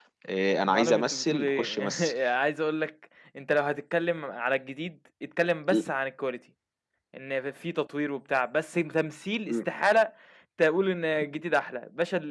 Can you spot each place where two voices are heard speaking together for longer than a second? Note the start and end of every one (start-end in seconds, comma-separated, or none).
0.6-2.1